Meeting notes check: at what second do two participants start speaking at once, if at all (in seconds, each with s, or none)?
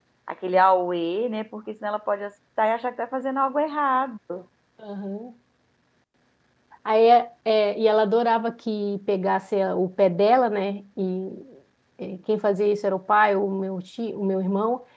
none